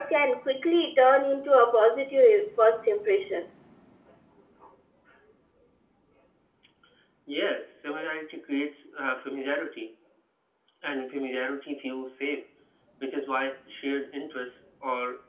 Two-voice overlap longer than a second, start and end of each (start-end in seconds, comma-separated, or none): none